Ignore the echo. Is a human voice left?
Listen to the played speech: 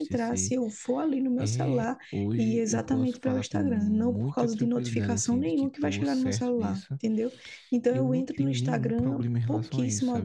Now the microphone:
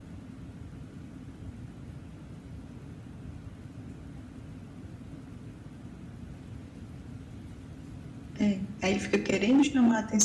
Yes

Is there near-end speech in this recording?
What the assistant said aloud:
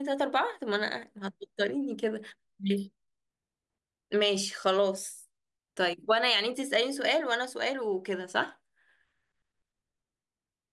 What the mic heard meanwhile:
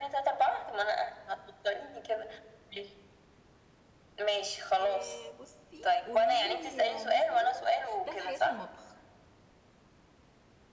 Yes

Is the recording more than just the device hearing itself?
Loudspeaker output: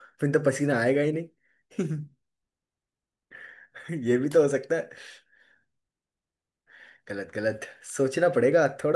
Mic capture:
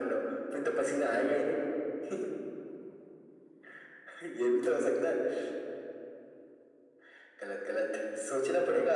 No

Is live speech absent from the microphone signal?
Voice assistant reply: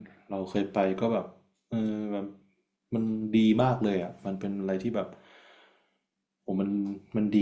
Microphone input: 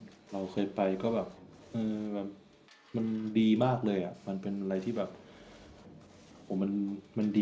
Yes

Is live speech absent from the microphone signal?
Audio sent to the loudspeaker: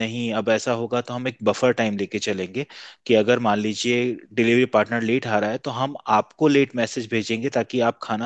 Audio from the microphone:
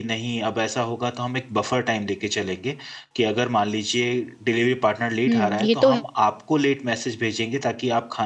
No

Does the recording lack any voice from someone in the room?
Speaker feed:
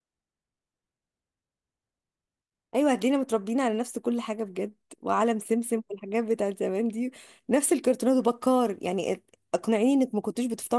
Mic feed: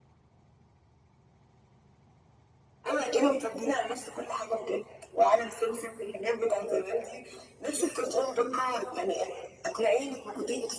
Yes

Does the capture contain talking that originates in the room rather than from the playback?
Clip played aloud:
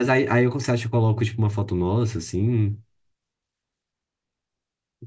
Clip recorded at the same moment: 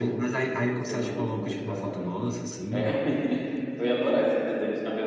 Yes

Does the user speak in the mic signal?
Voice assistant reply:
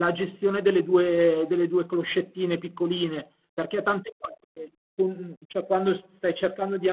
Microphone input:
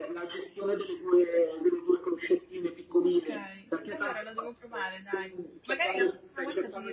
Yes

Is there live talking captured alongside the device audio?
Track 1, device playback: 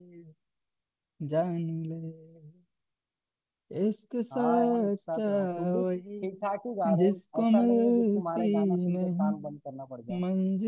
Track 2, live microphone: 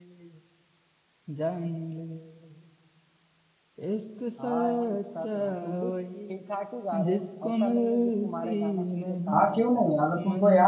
Yes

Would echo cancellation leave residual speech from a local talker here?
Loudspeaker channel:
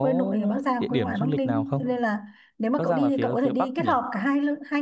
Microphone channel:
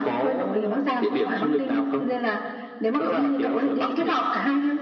No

